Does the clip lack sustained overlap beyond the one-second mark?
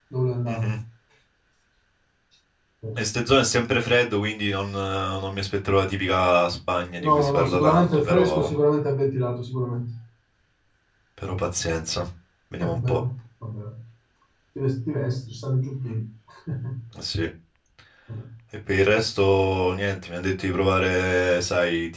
No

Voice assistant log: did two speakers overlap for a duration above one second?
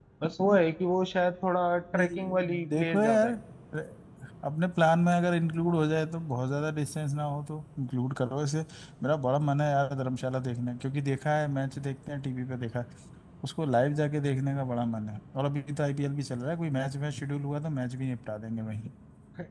Yes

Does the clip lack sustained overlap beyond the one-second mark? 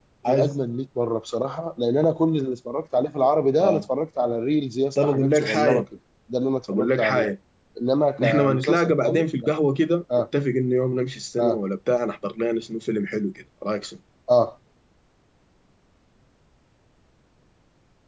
No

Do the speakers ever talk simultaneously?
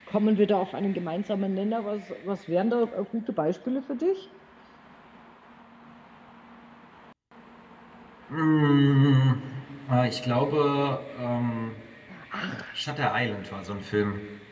No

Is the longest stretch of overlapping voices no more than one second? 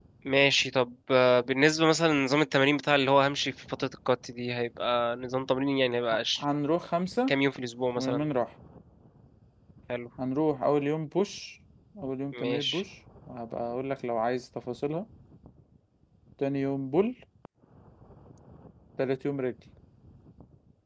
Yes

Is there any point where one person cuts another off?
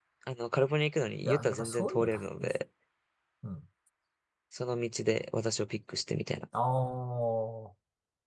Yes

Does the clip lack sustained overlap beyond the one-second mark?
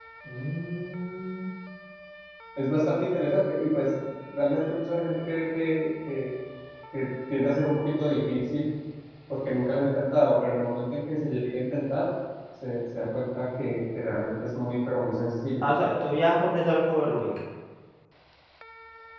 Yes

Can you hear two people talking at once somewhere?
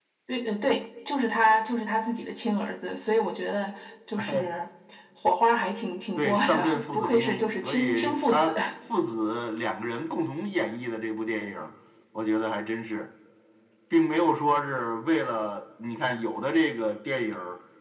Yes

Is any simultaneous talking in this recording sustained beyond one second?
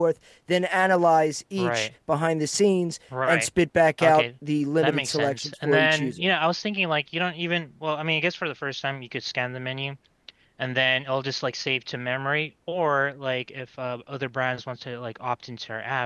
Yes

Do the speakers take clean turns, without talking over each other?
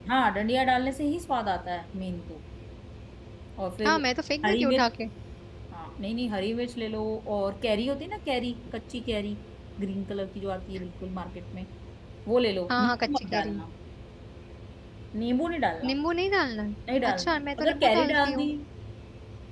No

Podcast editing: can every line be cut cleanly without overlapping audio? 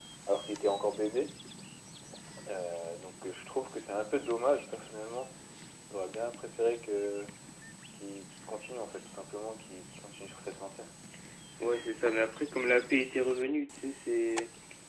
Yes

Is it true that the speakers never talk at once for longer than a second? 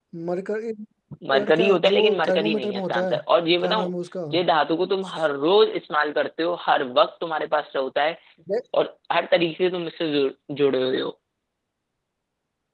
No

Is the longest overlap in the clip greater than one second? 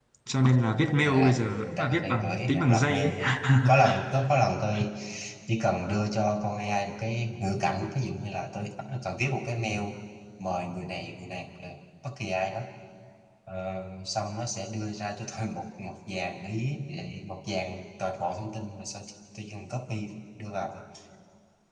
Yes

